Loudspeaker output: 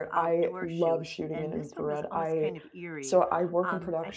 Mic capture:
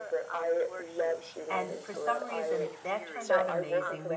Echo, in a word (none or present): present